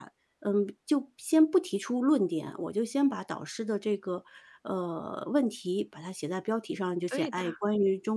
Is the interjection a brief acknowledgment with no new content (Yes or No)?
Yes